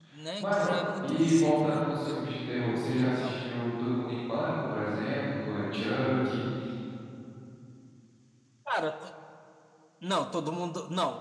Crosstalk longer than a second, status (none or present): present